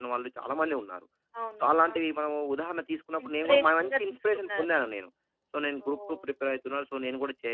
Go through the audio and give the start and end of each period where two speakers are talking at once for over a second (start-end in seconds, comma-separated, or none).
3.2-4.7